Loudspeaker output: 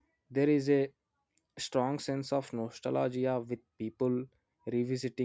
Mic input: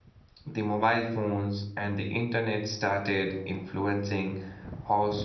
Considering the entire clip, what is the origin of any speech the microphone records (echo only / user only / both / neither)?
user only